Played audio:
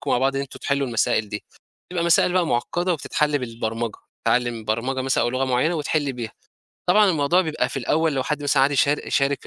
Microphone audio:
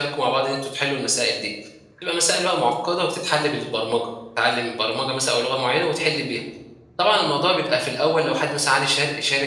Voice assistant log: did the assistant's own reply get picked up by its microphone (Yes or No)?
Yes